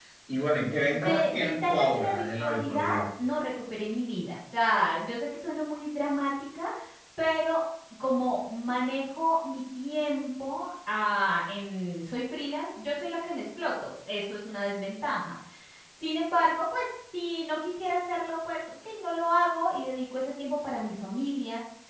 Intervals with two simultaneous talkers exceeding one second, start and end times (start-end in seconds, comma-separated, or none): 0.9-3.0